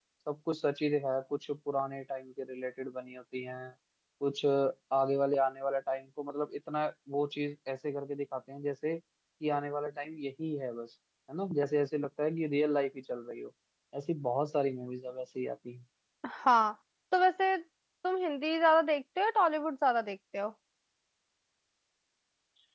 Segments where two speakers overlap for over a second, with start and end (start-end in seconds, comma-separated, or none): none